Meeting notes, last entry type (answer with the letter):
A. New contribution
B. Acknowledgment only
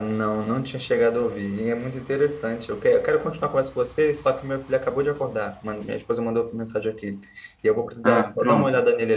B